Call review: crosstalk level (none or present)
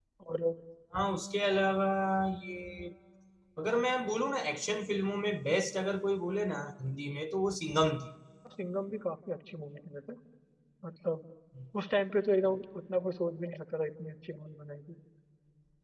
none